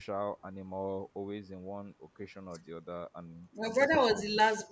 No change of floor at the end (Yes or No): No